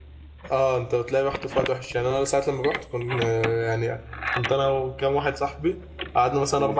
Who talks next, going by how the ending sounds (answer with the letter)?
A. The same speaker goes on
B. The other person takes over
A